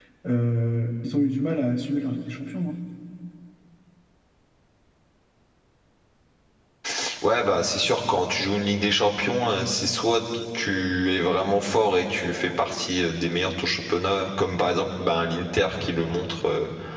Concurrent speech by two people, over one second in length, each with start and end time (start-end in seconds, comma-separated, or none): none